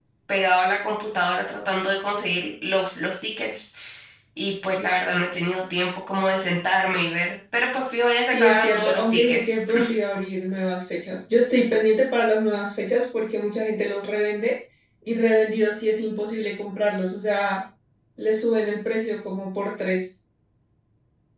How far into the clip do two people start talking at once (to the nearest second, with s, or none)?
8 s